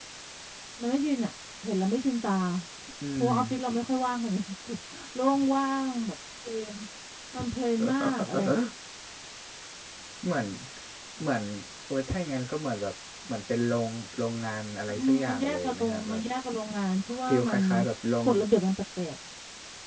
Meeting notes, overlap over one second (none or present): present